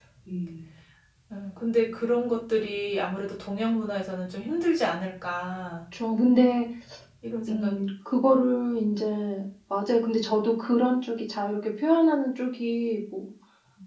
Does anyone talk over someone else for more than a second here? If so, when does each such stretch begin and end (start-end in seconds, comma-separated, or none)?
none